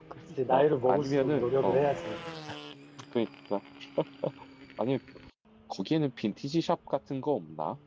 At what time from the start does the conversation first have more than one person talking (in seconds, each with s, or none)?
0.5 s